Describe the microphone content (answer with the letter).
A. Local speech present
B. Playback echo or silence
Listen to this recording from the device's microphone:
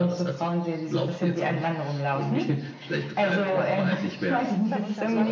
A